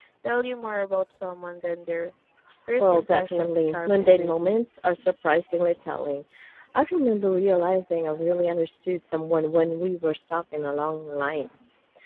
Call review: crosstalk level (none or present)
present